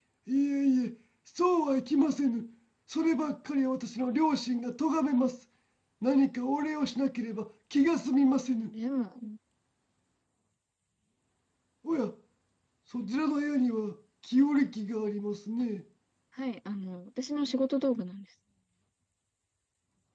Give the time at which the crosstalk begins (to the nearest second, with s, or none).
none